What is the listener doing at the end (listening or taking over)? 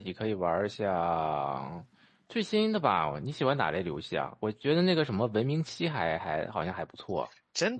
taking over